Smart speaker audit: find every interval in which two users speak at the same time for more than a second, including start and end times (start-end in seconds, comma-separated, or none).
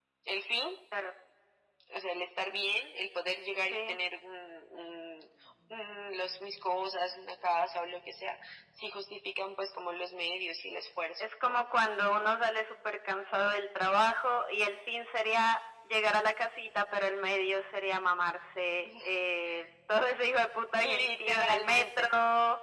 20.8-22.1